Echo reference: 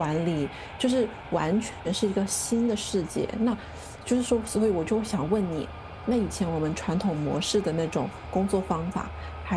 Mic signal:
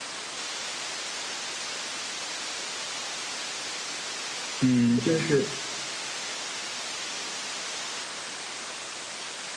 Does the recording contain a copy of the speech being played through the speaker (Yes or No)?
No